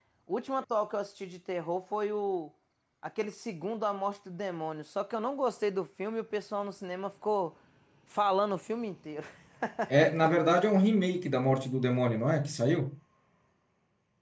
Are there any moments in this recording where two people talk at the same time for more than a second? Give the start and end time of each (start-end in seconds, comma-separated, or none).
none